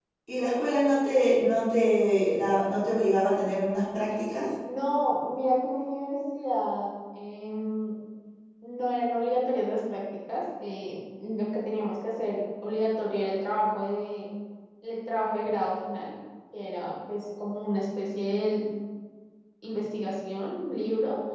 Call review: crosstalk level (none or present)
none